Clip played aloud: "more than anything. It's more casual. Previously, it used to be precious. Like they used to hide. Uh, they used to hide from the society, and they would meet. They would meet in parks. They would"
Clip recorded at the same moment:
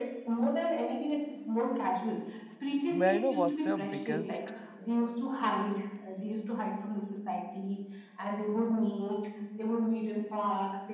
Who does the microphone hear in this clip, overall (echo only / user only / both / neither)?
both